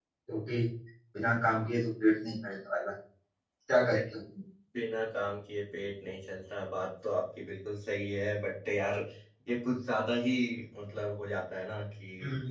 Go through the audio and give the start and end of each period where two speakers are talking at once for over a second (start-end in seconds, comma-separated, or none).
none